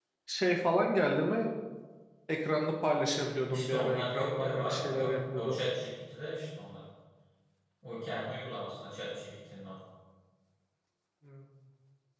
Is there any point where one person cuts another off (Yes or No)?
Yes